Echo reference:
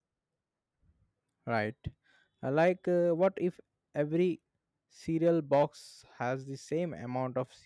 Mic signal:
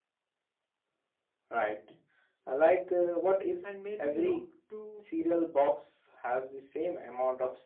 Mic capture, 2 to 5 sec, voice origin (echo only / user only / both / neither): both